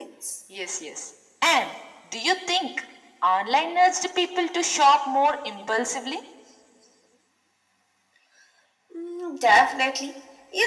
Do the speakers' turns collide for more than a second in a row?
No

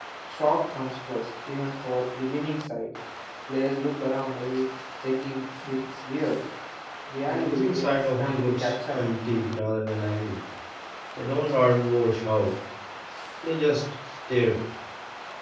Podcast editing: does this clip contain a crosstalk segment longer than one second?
Yes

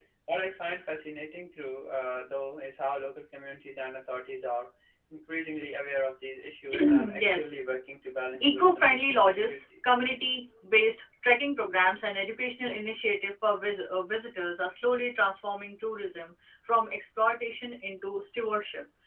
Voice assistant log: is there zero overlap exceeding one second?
No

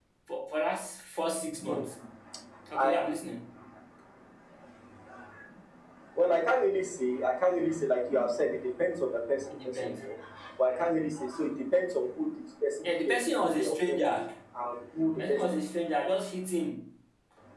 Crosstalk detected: Yes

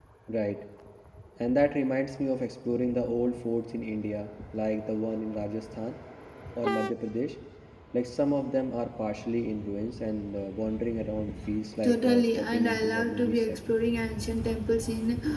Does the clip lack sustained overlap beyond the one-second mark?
No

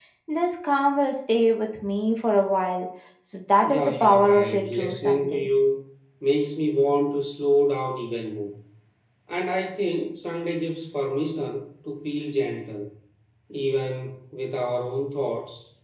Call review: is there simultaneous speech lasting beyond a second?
Yes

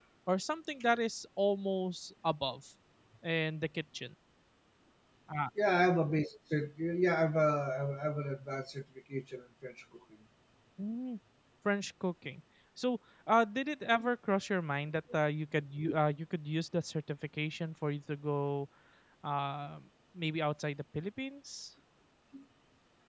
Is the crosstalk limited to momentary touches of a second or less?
Yes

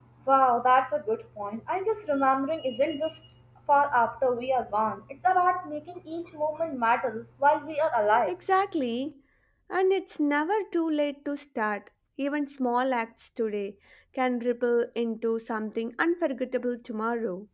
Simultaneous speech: No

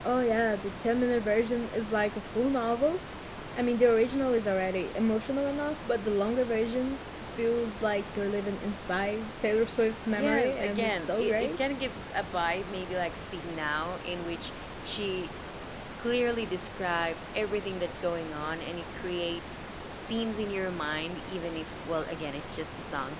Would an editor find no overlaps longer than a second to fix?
No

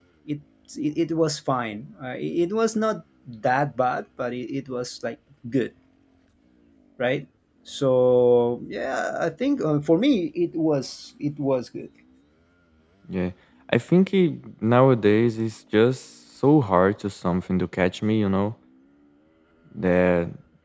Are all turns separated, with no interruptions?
Yes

